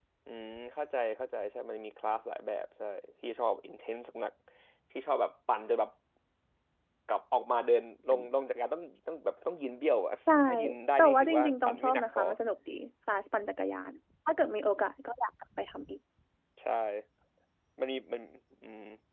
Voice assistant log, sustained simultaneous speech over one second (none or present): present